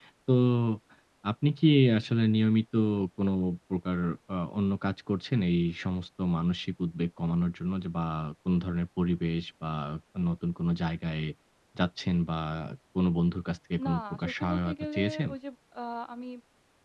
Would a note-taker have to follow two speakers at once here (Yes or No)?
Yes